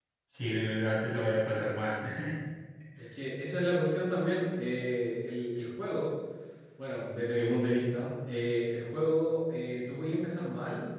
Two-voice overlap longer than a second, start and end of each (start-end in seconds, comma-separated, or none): none